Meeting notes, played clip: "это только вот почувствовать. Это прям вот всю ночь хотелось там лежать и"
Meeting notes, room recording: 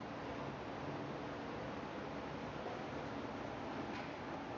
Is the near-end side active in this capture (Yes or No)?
No